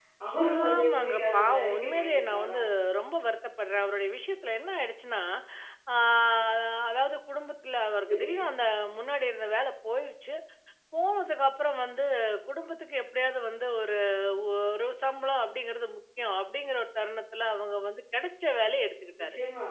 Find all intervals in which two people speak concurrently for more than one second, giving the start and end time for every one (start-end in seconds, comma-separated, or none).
0.7-2.6